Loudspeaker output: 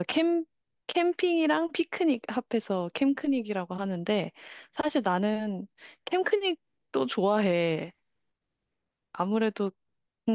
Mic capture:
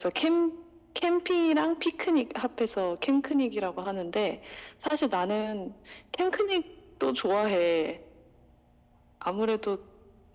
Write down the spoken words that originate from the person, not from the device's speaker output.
none

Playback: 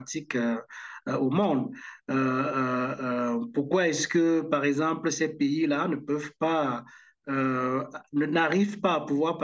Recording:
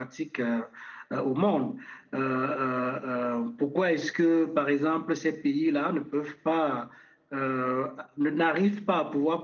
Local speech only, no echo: none

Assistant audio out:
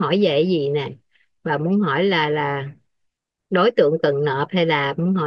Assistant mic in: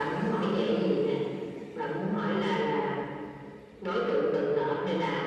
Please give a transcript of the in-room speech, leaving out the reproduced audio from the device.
none

